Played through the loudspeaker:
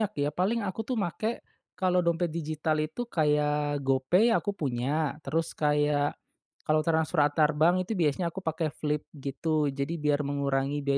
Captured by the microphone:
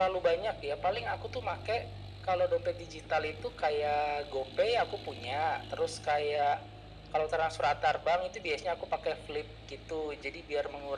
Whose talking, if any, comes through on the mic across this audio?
echo only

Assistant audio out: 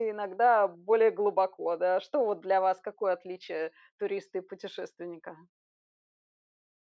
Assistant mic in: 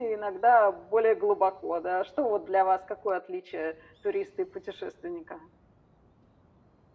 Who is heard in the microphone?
echo only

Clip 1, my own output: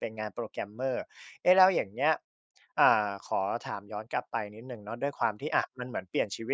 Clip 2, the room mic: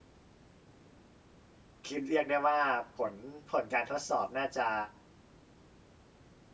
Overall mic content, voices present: user only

